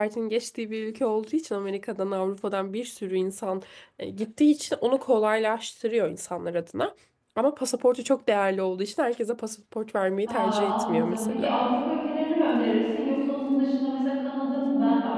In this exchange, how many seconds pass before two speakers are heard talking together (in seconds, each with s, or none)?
10.2 s